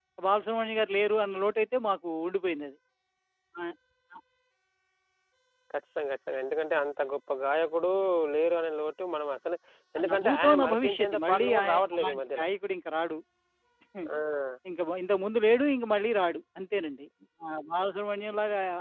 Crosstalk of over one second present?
Yes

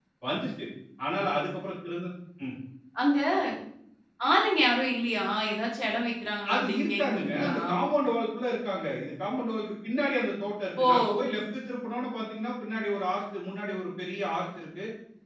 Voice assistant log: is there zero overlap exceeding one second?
No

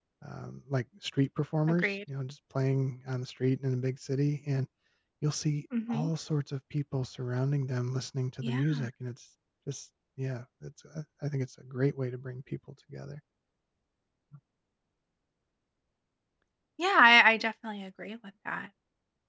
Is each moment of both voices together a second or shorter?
Yes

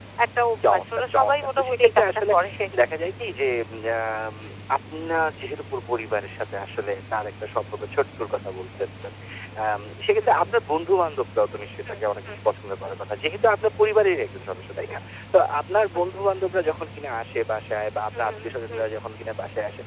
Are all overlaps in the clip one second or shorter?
No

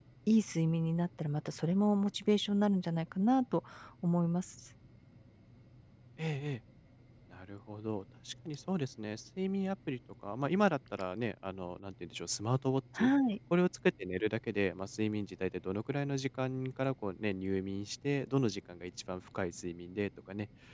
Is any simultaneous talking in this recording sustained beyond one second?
No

